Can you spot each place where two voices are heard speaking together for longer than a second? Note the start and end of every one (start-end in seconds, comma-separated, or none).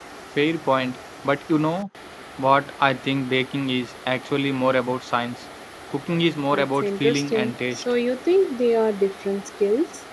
6.5-7.8